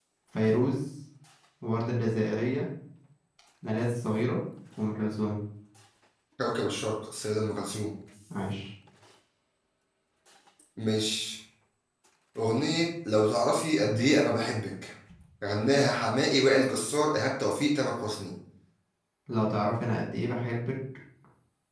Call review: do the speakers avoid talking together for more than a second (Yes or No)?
Yes